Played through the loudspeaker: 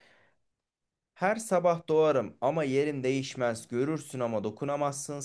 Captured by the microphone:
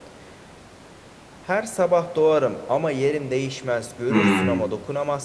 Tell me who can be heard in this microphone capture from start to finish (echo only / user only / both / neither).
both